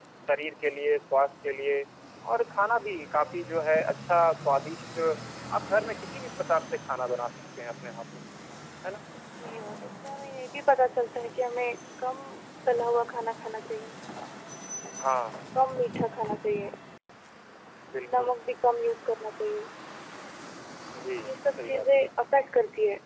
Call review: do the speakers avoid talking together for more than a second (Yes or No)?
Yes